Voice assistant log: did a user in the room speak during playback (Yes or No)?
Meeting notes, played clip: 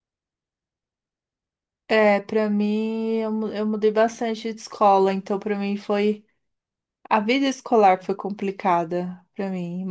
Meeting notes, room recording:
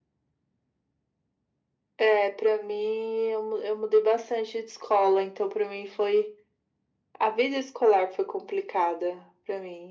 No